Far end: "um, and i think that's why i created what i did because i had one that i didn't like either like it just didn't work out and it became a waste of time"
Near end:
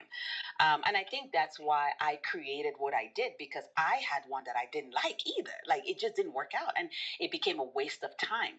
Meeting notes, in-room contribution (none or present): none